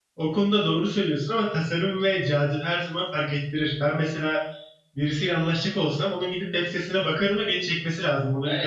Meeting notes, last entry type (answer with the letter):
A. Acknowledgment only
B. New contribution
B